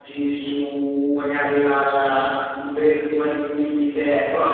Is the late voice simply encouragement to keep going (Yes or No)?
Yes